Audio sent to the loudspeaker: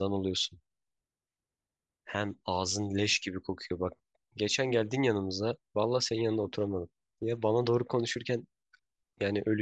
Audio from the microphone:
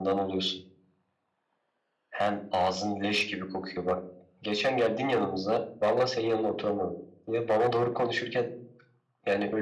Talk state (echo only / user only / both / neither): echo only